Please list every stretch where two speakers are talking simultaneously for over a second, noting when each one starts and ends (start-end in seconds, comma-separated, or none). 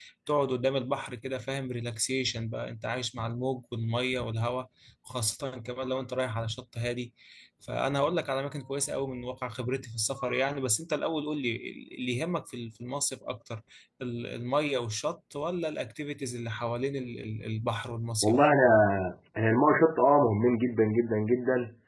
none